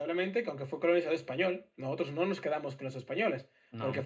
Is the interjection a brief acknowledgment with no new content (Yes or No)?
Yes